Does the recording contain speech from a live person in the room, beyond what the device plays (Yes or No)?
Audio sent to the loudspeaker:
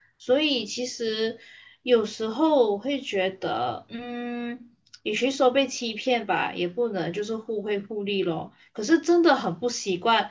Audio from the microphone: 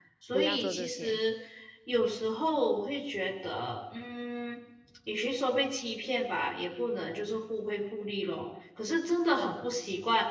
Yes